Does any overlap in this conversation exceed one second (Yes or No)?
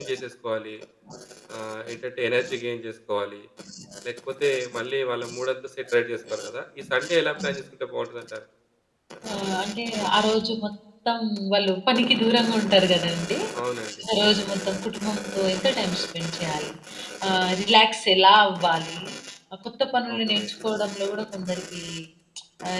No